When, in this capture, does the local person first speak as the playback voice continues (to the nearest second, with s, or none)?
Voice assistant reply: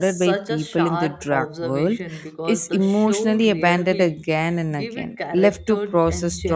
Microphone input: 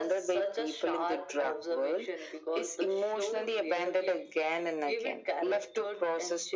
none